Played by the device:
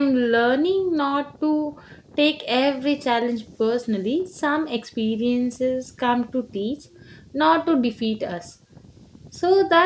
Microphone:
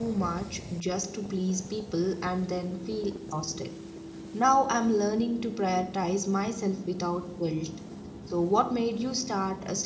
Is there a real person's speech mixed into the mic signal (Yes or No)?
Yes